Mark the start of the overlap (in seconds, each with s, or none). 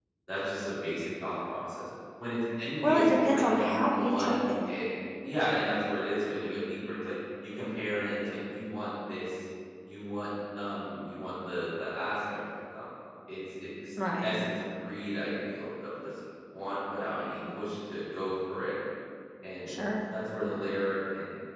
2.8 s